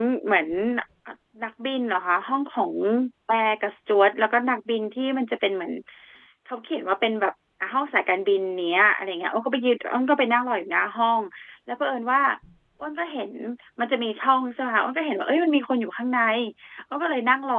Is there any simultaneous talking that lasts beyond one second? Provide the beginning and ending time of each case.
none

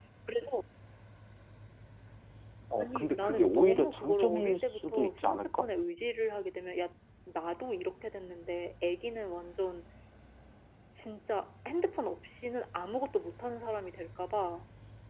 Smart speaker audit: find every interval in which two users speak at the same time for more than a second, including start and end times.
2.8-5.7

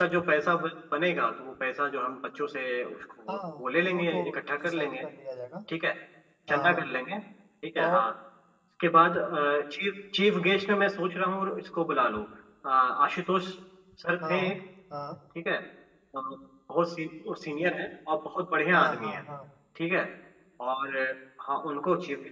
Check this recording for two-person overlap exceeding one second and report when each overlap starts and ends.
3.3-5.0

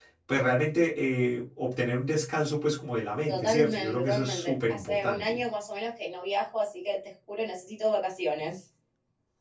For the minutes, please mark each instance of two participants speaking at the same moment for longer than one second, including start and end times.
3.3-5.4

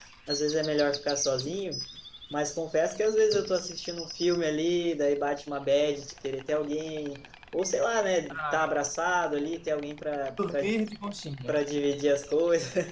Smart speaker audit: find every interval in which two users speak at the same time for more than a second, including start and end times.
none

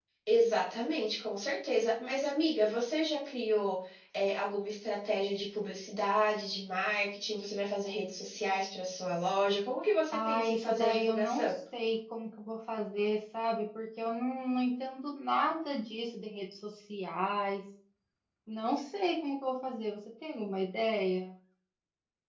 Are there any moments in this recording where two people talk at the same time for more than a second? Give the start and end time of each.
10.1-11.6

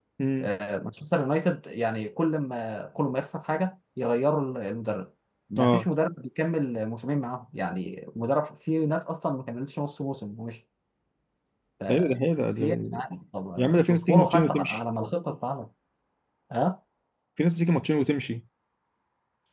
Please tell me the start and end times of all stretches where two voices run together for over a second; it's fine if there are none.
13.6-14.8

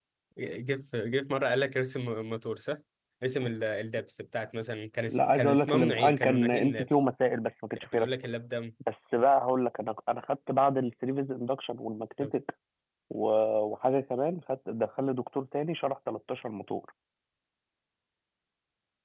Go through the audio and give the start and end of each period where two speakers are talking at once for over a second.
5.1-7.0

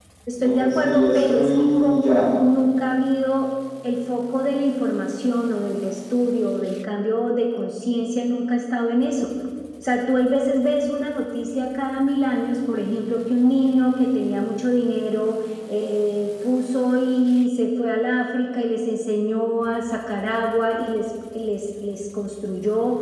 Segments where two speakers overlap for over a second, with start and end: 0.6-2.3

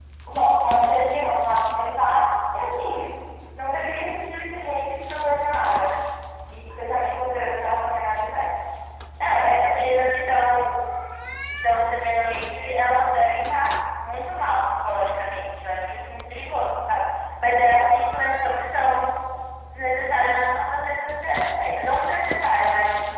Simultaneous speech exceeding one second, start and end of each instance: none

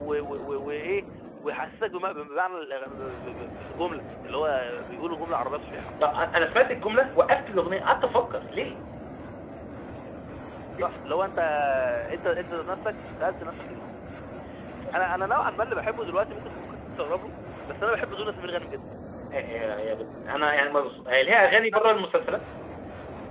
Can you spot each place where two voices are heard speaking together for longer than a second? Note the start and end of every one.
none

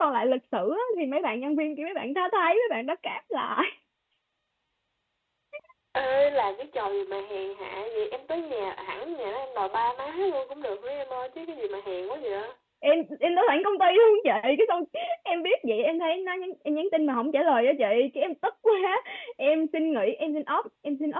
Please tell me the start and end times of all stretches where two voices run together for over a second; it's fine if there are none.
none

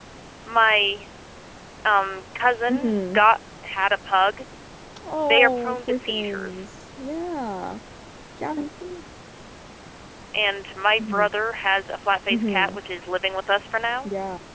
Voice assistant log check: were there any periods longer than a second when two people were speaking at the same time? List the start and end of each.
5.3-6.7

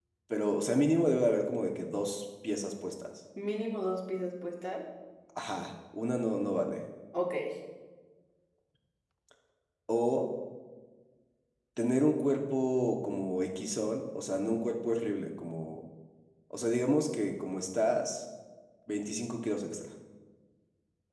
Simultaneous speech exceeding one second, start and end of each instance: none

